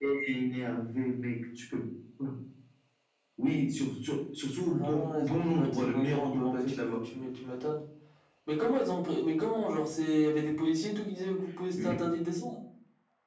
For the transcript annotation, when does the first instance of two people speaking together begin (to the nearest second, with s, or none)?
5 s